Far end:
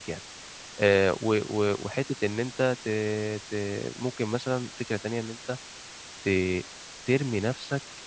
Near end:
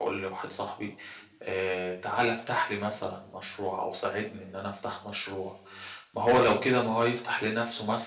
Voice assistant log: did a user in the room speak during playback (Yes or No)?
Yes